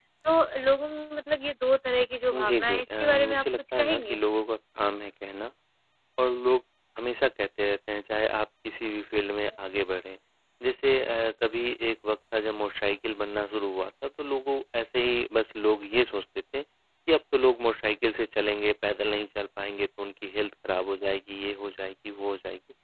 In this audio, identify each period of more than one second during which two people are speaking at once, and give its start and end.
2.5-4.2

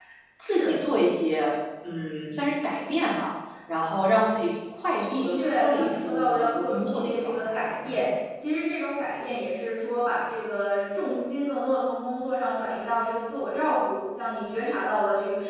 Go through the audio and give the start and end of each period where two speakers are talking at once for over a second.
5.1-8.0

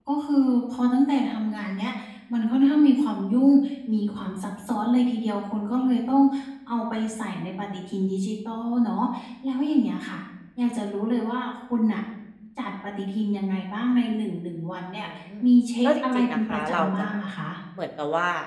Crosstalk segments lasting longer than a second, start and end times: 15.8-17.1

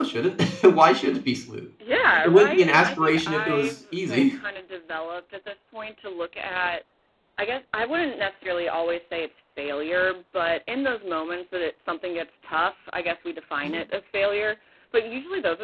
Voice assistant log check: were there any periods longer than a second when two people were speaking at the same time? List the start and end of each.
2.2-4.2

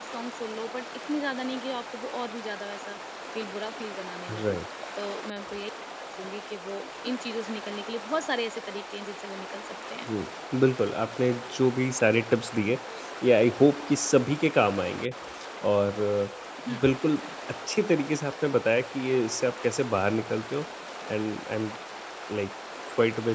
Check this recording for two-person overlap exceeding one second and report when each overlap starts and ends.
none

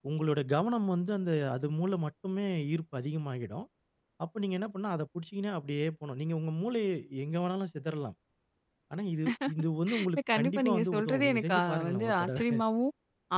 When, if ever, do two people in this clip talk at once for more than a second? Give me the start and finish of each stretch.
10.0-12.4

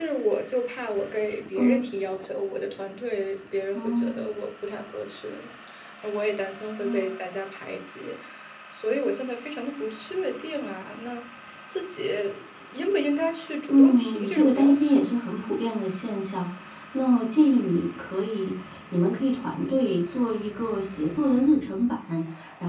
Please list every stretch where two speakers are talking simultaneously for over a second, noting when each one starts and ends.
13.7-15.0

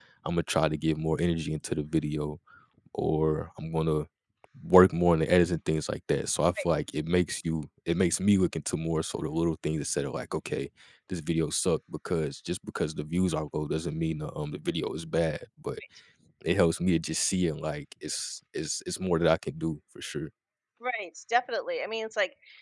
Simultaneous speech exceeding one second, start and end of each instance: none

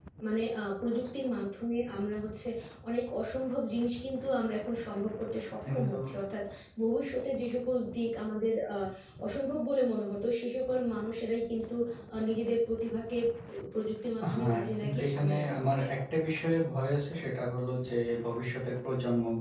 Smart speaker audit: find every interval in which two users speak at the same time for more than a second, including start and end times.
14.3-15.9

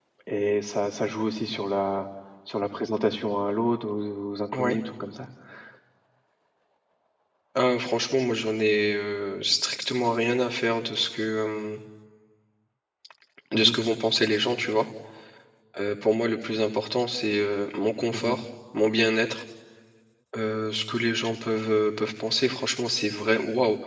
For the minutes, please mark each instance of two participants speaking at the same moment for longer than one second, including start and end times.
none

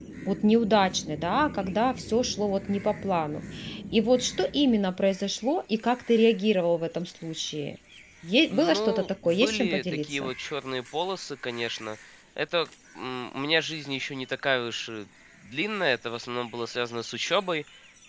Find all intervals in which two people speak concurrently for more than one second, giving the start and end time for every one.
8.5-10.3

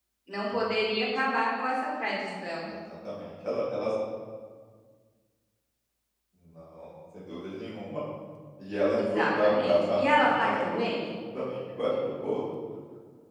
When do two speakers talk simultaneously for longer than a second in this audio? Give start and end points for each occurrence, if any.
8.9-10.8

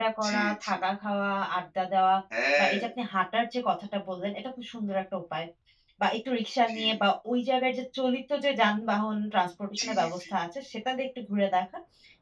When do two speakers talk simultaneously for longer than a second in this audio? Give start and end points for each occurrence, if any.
none

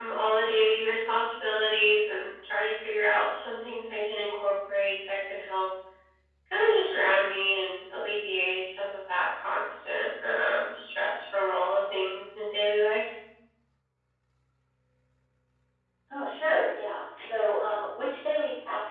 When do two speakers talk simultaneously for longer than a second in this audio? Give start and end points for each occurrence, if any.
none

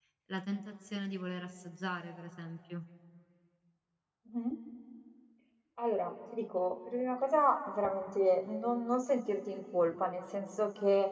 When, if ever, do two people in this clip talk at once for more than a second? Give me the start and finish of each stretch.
none

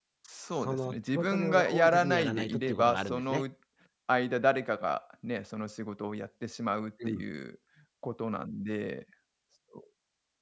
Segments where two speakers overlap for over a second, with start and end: 0.5-3.4

